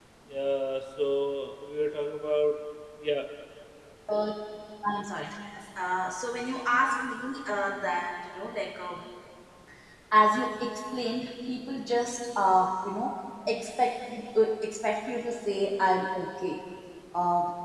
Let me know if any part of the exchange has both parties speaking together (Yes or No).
No